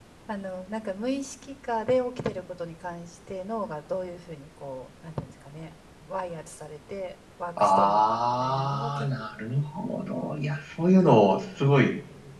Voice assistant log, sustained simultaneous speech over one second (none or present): present